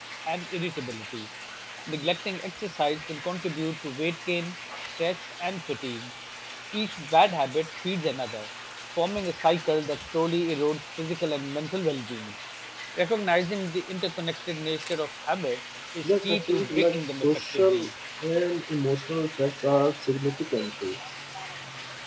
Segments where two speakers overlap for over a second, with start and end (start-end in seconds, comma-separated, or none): 16.0-17.9